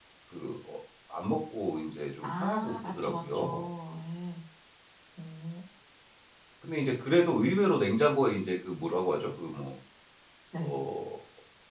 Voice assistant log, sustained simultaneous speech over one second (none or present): present